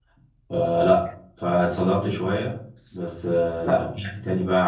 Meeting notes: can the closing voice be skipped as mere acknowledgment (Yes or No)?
Yes